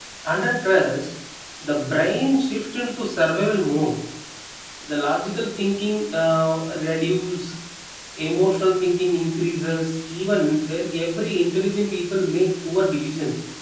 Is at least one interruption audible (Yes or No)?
No